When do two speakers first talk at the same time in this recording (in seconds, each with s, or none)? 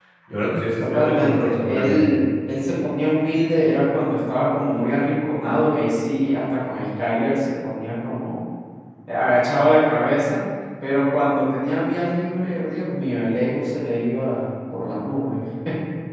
0.8 s